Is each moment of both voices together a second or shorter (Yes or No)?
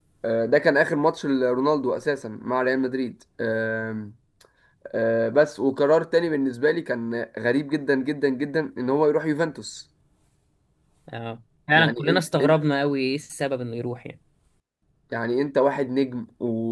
Yes